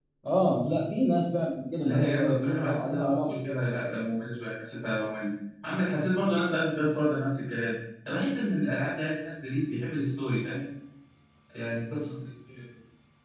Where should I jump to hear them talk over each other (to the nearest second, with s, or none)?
2 s